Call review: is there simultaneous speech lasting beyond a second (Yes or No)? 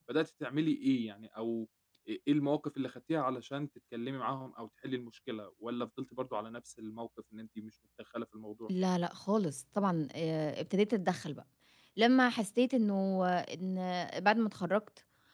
No